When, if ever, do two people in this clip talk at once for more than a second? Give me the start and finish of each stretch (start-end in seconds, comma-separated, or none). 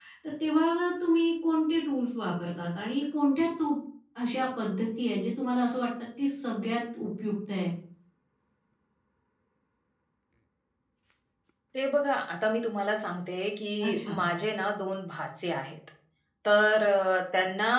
none